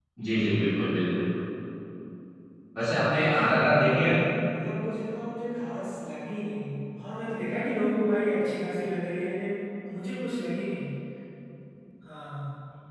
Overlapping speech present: Yes, from 2.8 s

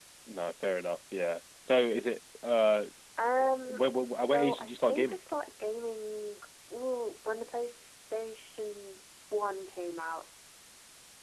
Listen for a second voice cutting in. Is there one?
Yes, from 3.6 s

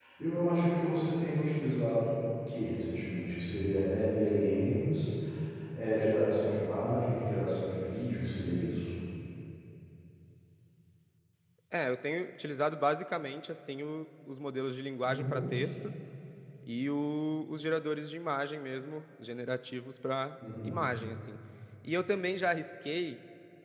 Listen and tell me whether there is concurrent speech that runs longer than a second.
No

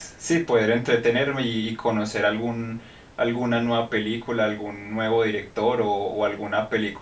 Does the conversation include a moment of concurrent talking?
No

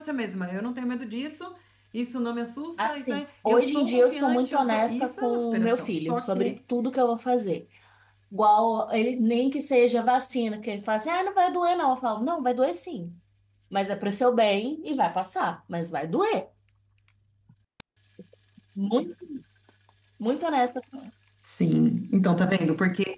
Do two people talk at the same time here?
Yes, from 2.8 s

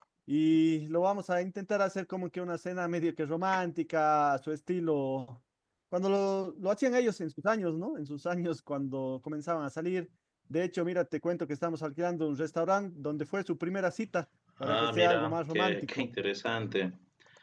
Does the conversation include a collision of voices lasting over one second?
Yes, from 14.6 s

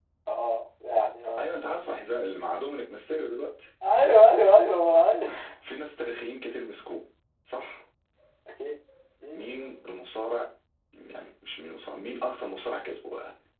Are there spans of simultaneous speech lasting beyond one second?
No

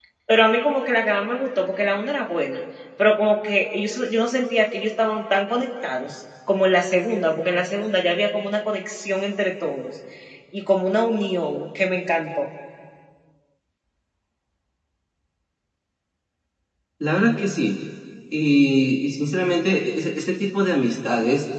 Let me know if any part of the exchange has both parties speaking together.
No

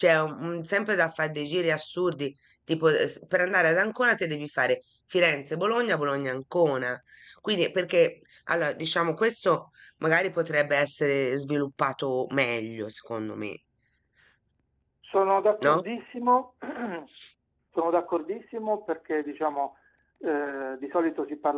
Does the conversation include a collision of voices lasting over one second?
No

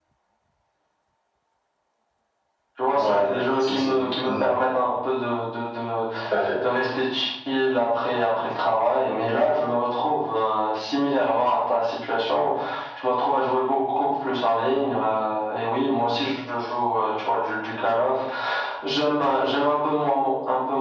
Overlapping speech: Yes, from 2.9 s

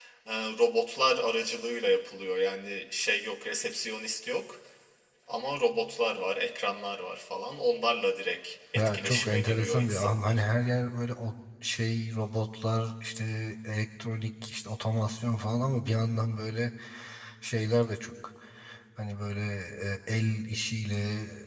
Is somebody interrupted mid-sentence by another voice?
Yes, from 8.8 s

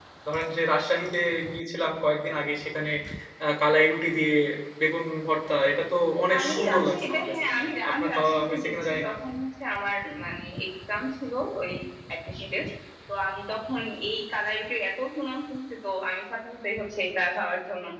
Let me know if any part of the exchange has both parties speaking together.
Yes, from 6.3 s

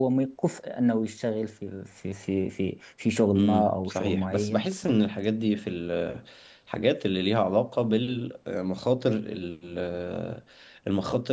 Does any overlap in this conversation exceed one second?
Yes, from 3.4 s

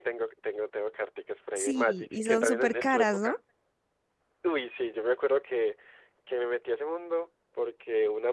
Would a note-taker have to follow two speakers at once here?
Yes, from 1.6 s

